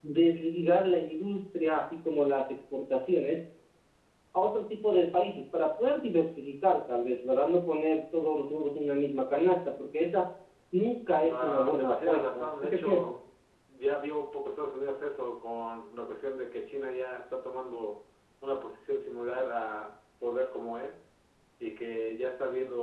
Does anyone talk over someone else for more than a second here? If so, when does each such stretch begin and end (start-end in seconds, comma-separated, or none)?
11.2-13.1